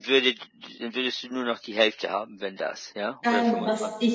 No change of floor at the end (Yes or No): No